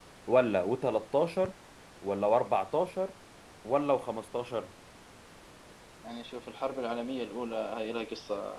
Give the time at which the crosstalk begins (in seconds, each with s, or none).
none